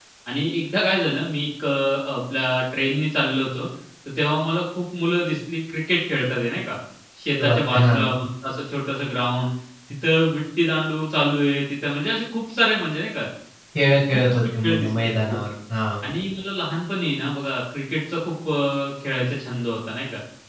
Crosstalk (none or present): present